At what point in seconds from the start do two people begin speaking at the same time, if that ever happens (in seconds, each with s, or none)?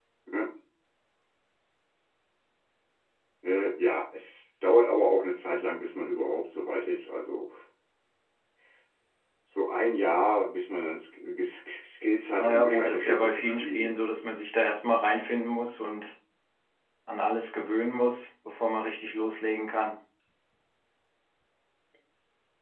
12.4 s